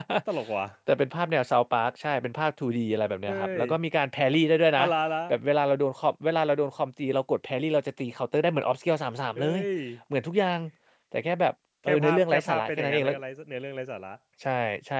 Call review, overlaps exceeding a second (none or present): present